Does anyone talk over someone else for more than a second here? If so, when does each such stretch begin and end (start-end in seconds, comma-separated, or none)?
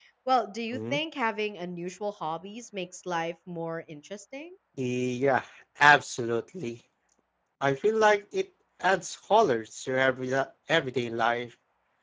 none